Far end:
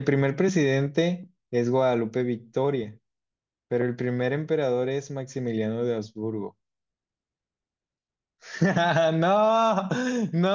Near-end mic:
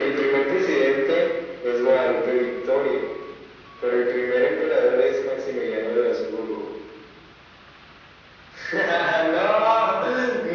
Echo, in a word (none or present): present